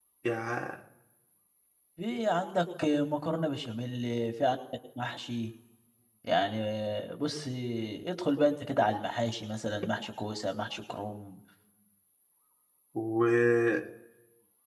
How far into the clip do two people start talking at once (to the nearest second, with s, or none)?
none